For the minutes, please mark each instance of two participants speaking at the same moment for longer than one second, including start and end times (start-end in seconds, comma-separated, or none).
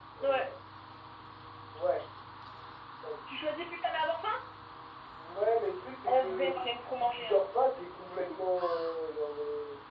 6.0-7.4